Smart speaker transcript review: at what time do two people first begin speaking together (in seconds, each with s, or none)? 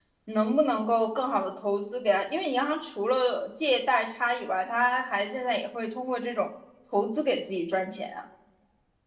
none